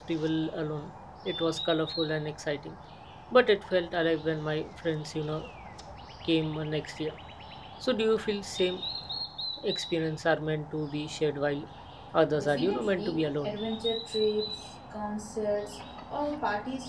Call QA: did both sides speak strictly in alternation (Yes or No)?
No